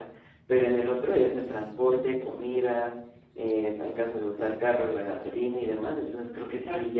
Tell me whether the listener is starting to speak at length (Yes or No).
No